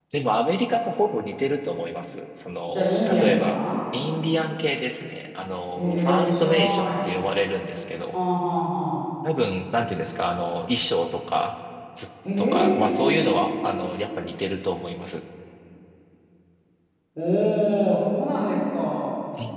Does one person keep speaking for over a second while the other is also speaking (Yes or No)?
Yes